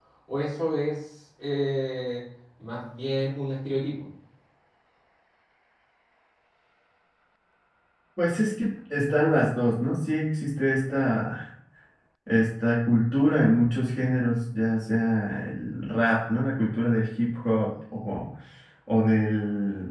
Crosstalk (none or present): none